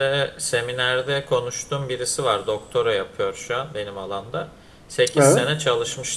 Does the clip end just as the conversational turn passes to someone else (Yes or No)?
No